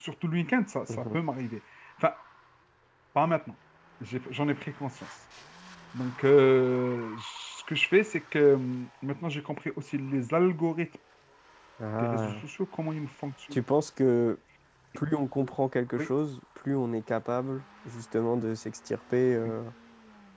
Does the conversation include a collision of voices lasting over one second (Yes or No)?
No